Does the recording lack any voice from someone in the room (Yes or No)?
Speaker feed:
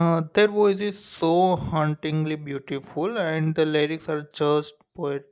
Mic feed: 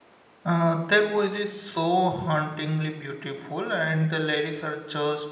Yes